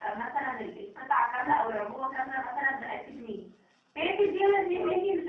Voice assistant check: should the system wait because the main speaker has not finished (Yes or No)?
Yes